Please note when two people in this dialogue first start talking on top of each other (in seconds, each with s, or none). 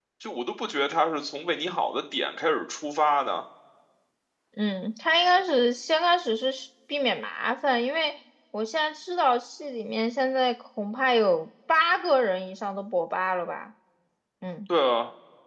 none